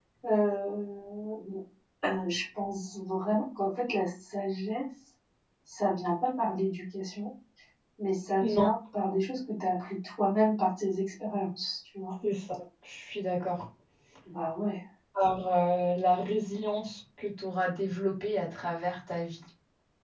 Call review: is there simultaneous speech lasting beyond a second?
No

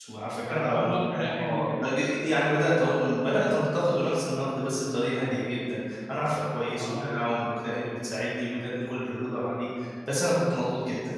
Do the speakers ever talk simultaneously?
Yes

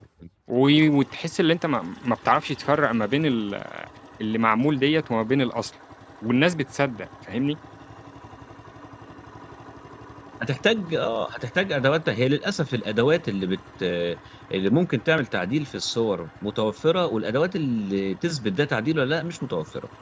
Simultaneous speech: No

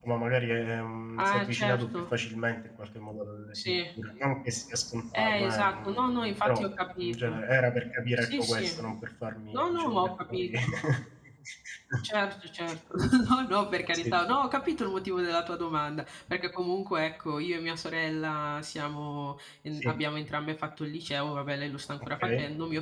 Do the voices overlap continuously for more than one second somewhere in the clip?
Yes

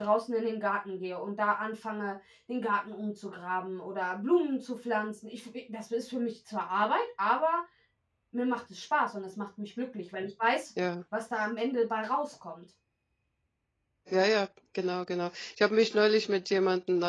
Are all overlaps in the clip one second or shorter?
Yes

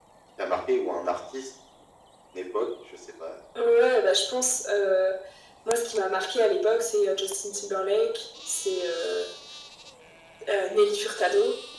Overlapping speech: No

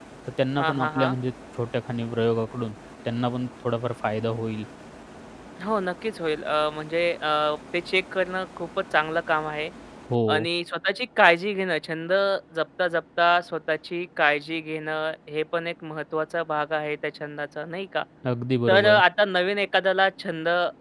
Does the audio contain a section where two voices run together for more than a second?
No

